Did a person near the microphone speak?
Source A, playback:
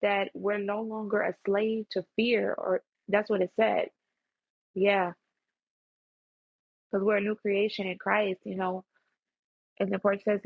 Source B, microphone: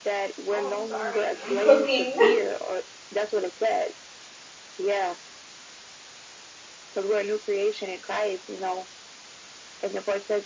Yes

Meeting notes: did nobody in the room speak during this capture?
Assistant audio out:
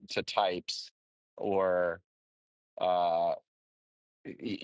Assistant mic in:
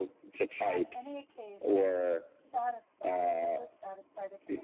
No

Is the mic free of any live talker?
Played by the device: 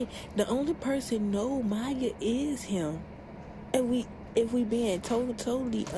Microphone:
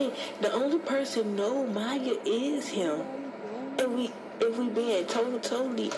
No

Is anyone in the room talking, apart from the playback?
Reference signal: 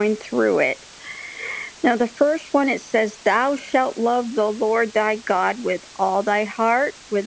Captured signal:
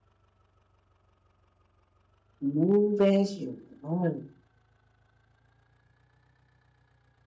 Yes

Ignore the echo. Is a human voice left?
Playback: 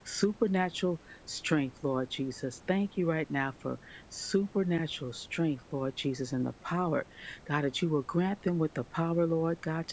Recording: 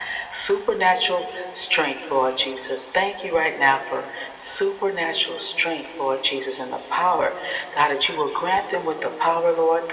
No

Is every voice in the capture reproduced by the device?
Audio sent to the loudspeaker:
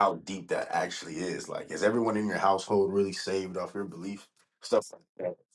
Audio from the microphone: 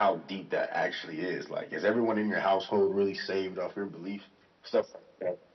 Yes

